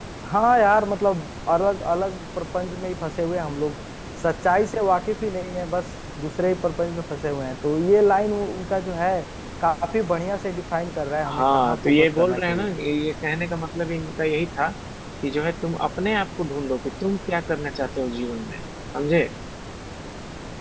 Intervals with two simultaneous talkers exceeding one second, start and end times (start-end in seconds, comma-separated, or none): 11.3-12.7